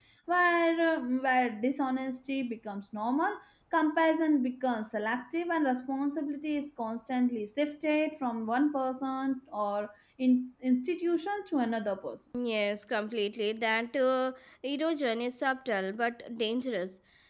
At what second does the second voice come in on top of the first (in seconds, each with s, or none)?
none